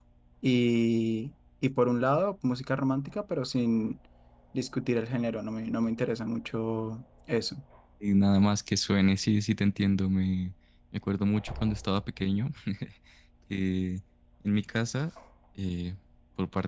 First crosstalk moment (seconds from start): none

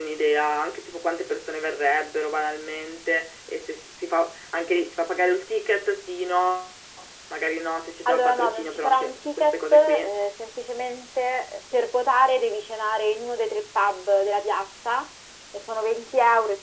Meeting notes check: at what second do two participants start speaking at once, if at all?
8.1 s

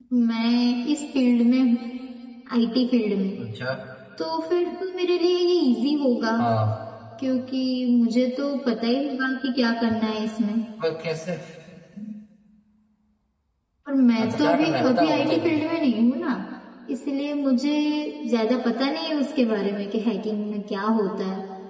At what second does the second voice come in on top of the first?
14.2 s

